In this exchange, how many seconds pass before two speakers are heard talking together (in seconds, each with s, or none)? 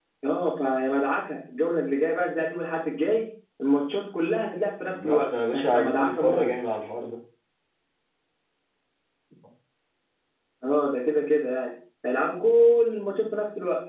4.9 s